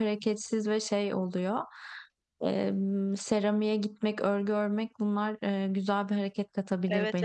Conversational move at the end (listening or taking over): taking over